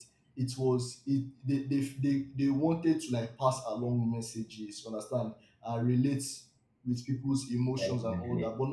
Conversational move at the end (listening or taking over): listening